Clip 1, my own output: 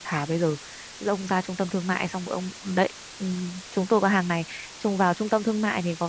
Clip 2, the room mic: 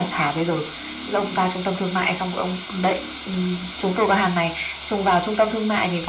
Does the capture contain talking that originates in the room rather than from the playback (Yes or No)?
No